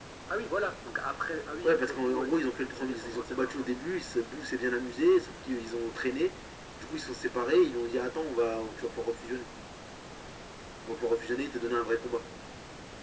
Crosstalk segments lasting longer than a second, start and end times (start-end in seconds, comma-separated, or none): 1.6-3.7